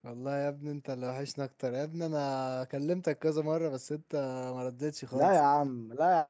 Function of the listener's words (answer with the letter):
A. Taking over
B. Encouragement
A